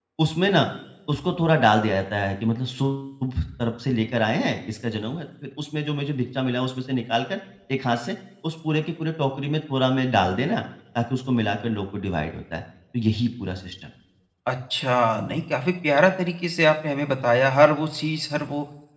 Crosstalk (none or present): none